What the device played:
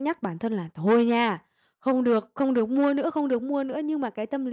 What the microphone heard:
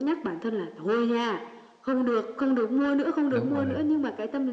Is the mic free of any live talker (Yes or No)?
No